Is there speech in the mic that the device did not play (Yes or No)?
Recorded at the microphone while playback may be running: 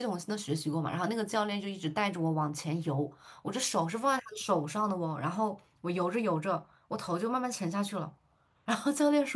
Yes